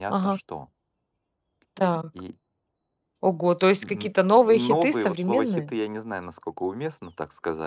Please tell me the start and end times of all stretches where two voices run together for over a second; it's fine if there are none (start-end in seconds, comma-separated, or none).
4.5-5.7